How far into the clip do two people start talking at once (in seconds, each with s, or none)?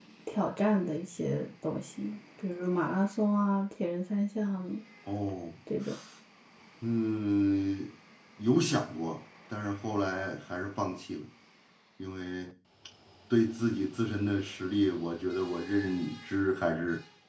none